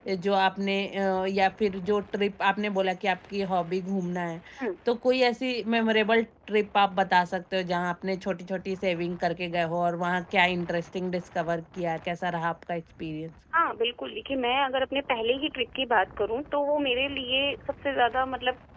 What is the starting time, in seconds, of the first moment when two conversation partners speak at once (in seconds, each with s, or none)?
none